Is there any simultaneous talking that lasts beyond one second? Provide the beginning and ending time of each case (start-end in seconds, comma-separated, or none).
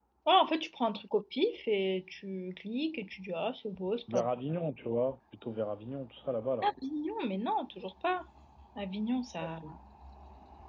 none